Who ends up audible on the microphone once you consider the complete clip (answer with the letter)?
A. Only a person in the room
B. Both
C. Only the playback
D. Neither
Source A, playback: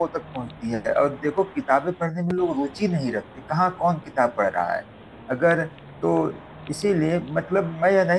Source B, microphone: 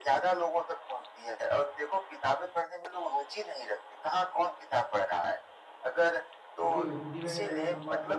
B